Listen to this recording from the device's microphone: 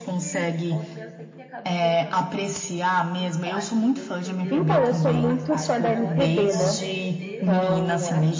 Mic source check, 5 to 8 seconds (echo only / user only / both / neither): both